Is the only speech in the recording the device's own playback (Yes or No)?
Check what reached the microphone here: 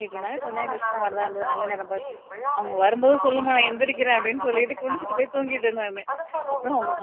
No